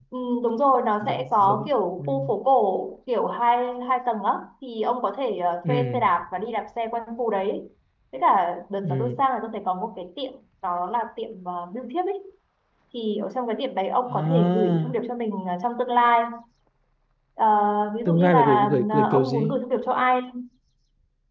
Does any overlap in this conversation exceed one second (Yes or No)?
Yes